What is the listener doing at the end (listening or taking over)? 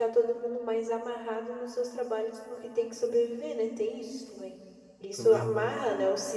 listening